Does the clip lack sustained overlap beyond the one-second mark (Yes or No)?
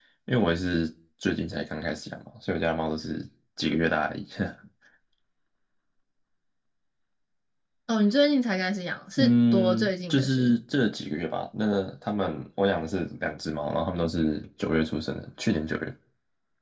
No